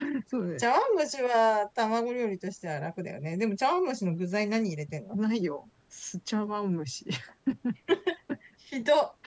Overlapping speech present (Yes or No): No